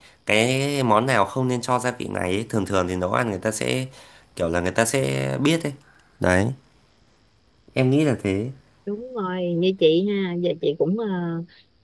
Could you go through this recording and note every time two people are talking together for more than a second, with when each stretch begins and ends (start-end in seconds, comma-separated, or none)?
none